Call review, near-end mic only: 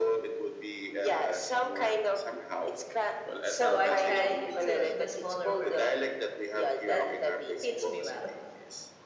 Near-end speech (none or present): present